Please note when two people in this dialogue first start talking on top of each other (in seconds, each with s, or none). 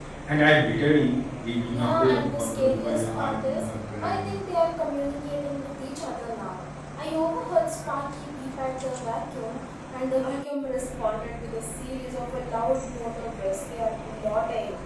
1.7 s